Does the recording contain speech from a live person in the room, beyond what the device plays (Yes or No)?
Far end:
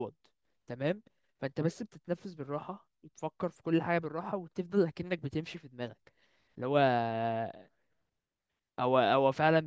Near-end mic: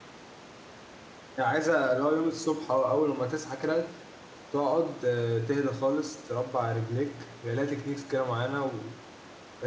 Yes